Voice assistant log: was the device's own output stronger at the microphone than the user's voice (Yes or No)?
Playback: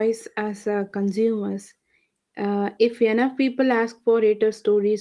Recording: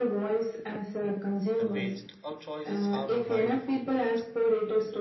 Yes